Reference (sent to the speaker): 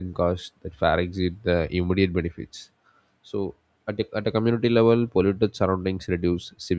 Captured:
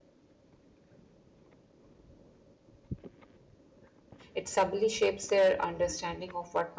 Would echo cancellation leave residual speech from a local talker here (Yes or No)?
Yes